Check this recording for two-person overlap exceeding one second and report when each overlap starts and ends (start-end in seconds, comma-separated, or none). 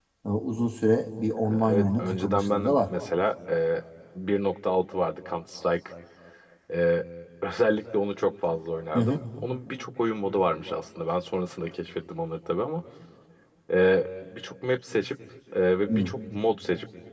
1.5-2.9